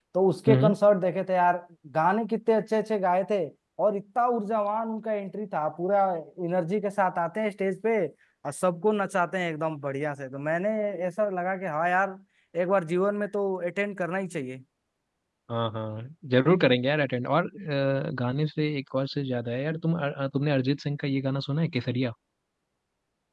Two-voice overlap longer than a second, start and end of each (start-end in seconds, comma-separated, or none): none